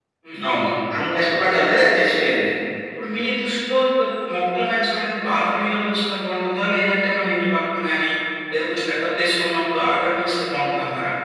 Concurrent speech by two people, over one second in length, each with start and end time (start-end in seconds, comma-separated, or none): none